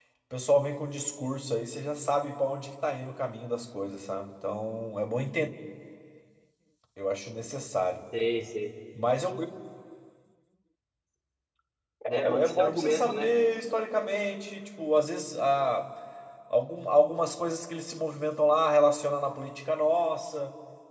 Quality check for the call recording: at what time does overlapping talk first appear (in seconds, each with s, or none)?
12.1 s